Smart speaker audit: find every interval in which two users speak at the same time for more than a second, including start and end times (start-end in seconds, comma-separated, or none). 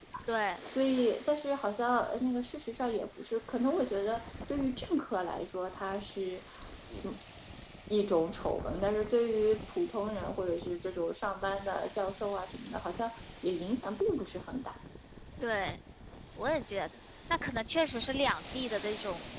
none